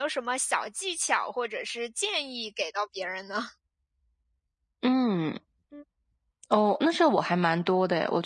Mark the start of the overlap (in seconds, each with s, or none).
none